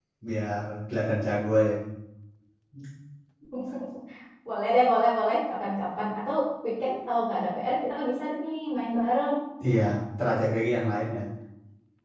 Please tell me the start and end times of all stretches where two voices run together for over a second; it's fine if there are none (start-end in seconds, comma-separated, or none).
none